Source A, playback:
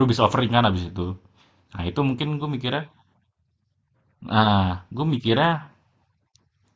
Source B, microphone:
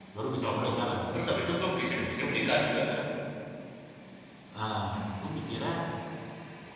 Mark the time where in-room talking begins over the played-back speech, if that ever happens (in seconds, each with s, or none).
0.4 s